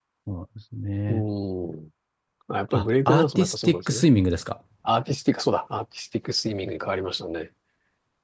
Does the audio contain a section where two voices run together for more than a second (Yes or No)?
Yes